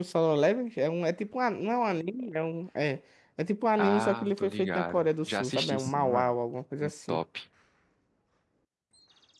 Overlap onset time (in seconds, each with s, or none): 3.8 s